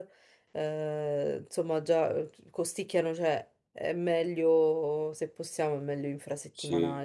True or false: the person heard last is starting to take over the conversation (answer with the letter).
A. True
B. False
A